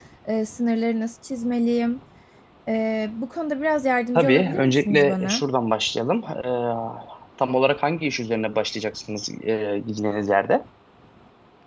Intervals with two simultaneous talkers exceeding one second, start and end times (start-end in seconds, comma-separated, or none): 4.2-5.4